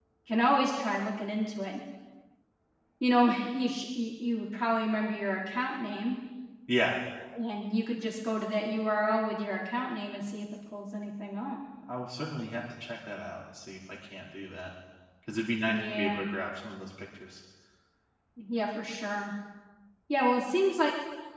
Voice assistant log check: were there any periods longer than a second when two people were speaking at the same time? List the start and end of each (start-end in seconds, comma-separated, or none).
none